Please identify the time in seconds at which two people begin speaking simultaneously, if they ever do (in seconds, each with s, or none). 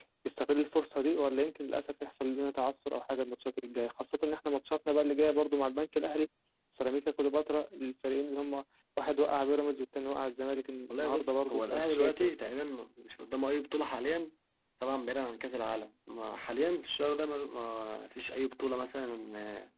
10.9 s